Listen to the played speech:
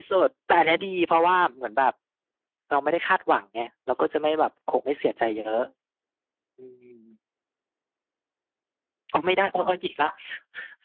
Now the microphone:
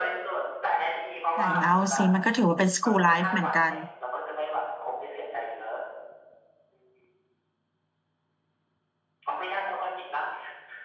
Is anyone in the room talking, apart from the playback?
Yes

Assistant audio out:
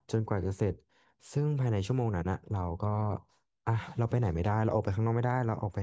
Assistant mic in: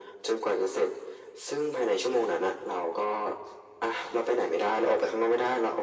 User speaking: No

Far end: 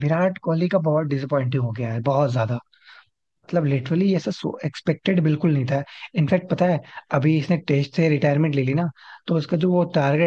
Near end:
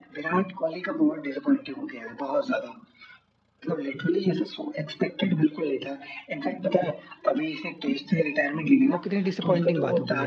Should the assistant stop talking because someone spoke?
Yes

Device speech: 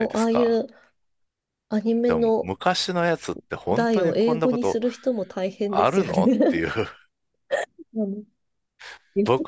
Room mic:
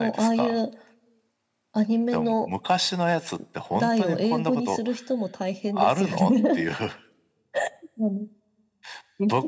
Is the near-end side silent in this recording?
Yes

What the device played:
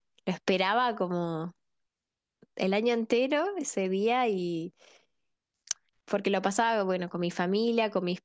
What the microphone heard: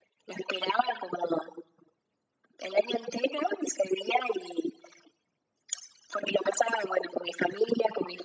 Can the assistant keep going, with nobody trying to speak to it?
Yes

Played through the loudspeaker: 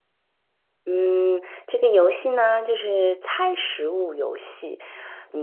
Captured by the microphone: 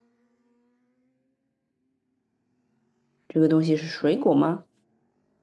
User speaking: Yes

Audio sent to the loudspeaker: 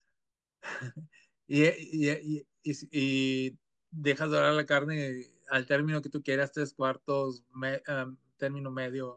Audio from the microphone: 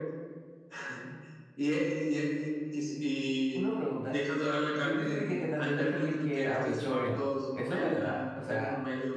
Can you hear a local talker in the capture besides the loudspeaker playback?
Yes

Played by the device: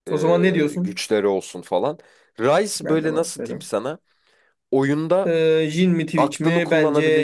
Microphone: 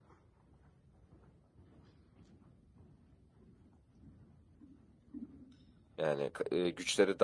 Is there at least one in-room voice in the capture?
Yes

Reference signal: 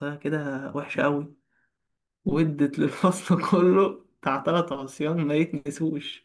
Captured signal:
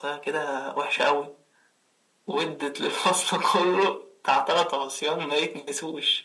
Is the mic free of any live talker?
Yes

